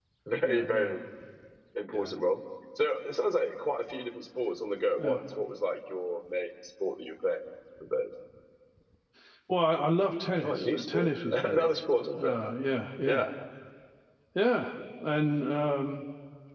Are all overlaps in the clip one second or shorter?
No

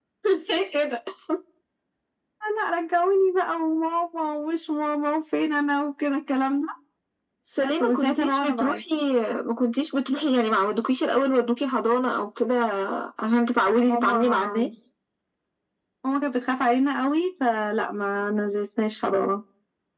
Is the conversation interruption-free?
No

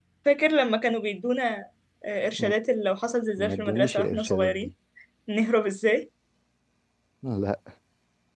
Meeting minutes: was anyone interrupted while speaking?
Yes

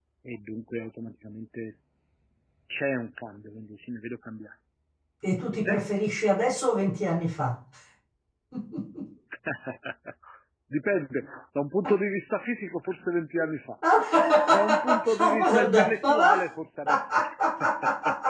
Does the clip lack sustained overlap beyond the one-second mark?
No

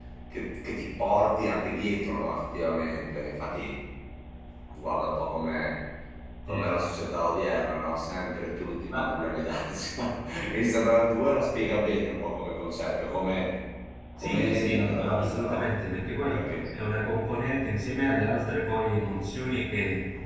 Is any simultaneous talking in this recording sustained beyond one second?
Yes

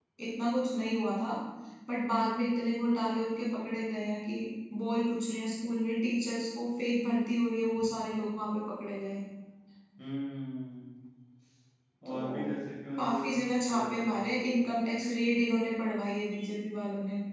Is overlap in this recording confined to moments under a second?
No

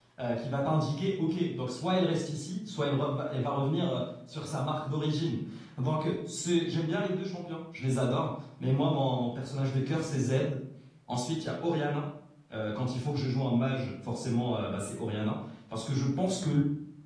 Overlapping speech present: No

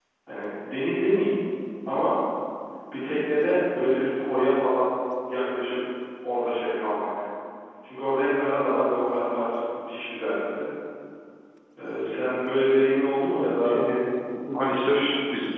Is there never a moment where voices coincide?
Yes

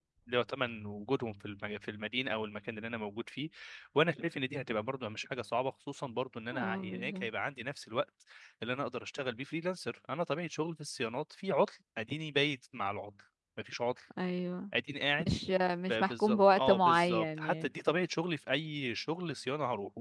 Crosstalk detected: Yes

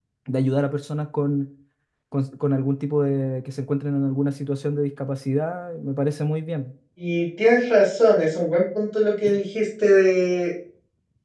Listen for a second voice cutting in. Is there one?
No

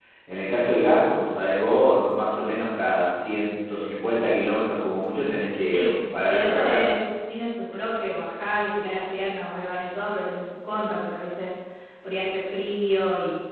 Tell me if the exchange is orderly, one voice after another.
No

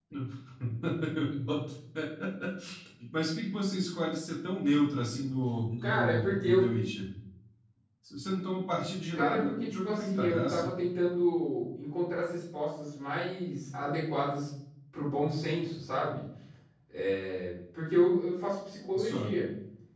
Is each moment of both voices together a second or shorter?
No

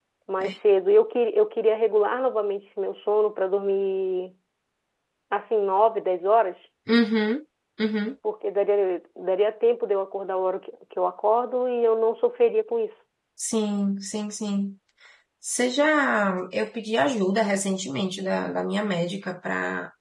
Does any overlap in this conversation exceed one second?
No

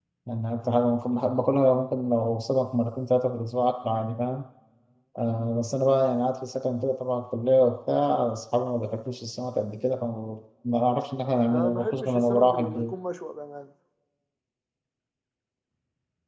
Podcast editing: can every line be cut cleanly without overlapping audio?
No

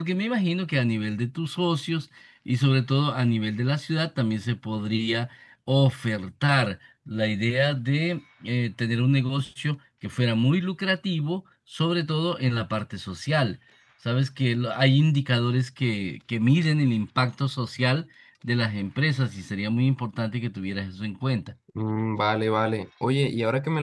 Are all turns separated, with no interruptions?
Yes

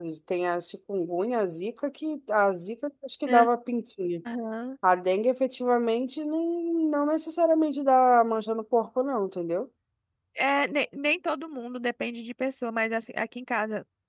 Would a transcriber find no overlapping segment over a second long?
Yes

